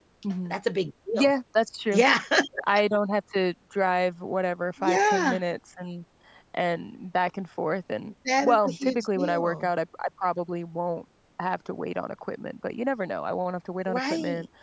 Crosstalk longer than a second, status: present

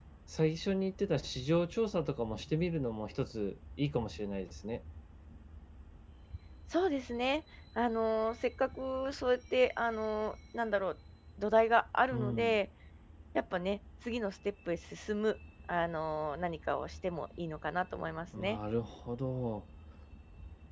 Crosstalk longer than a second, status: none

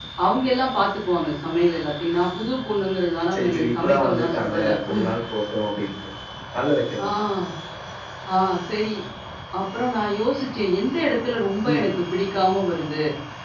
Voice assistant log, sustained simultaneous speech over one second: present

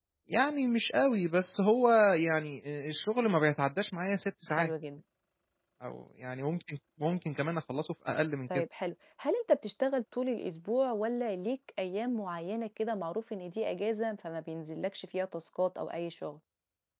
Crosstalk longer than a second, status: none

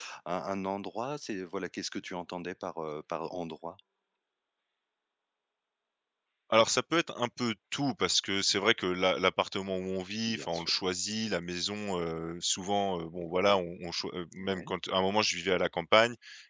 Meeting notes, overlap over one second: none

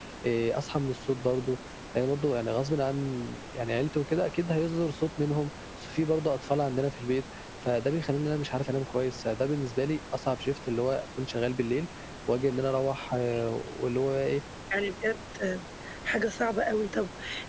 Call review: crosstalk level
none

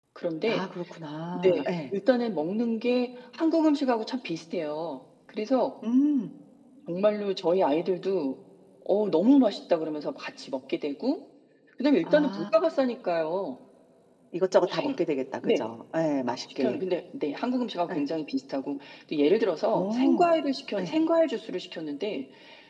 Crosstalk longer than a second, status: none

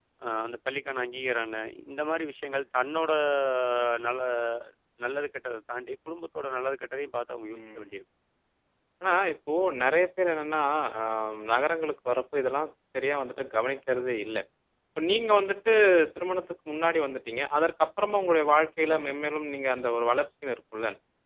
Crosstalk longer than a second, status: none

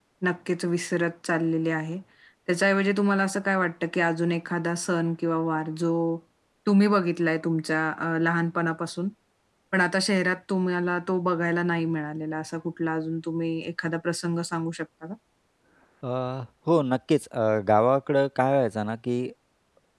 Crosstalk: none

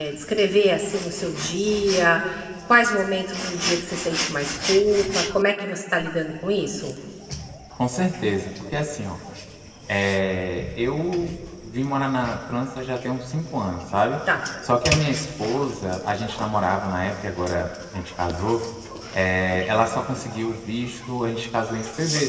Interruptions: none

